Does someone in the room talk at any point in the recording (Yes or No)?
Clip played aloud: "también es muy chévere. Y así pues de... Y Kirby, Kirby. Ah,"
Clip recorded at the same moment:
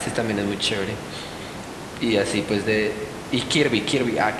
No